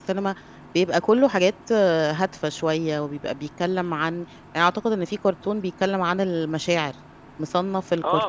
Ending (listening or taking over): taking over